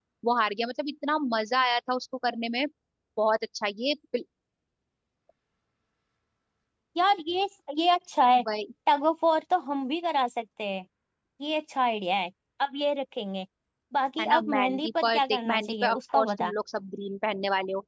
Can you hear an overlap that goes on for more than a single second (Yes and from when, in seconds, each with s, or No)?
Yes, from 14.2 s